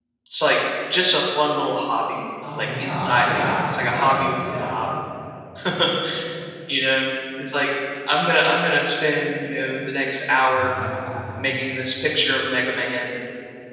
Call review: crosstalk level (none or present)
present